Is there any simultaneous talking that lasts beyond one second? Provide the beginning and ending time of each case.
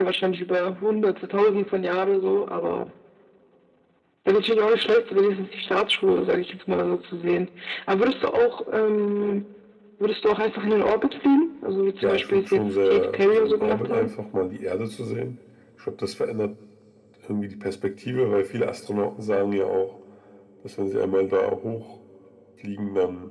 12.0-14.1

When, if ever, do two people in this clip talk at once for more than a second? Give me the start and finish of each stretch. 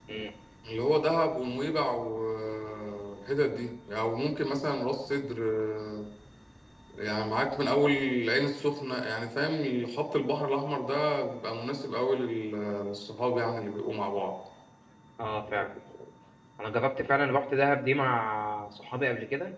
none

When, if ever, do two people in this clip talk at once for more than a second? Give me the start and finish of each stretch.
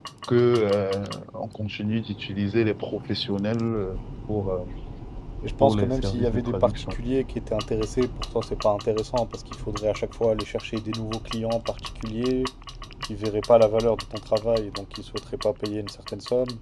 5.6-7.0

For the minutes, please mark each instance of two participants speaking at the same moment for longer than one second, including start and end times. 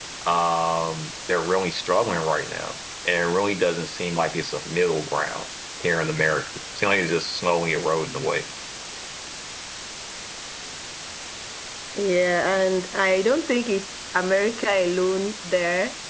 none

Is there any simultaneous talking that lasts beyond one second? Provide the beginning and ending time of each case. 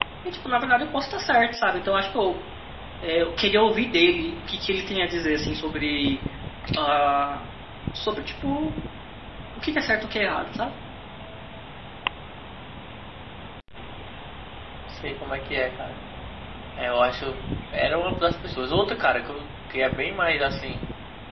none

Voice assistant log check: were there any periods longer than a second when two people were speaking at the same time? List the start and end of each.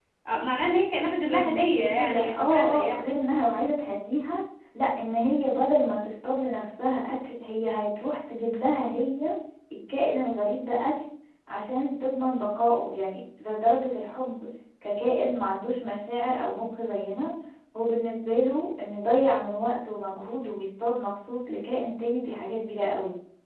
1.3-3.0

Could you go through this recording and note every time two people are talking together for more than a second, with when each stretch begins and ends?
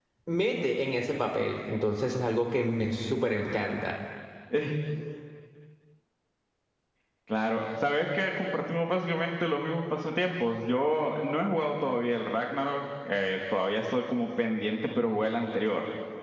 none

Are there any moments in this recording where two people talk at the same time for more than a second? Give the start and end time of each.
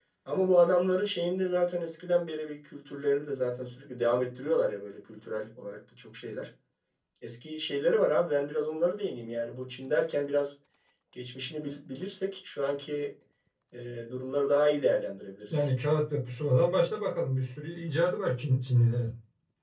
none

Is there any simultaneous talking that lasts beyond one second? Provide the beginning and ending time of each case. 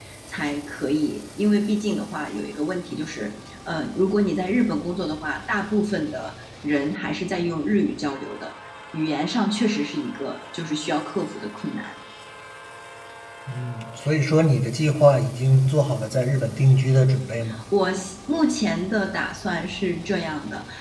none

